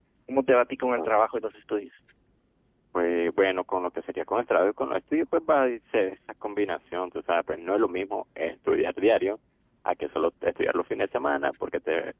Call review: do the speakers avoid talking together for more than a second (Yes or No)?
Yes